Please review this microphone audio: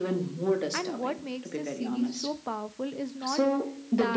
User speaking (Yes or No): Yes